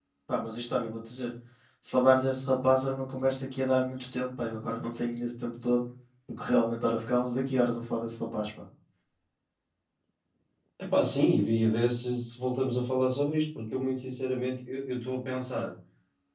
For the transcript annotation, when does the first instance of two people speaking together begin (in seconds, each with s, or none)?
none